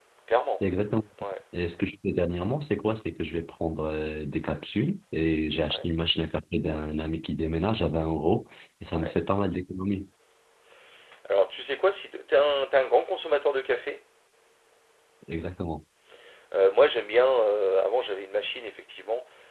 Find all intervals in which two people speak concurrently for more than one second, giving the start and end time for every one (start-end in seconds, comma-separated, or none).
none